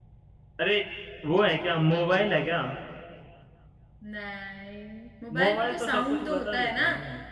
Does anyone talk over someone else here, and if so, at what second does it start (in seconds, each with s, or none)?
5.3 s